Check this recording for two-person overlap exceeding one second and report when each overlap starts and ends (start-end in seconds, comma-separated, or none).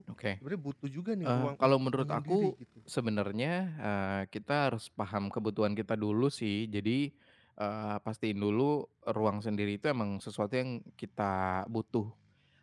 1.2-2.5